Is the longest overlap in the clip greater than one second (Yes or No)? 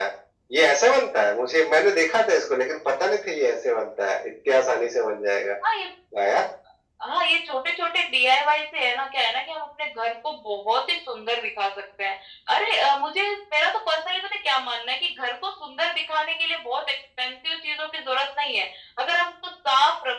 No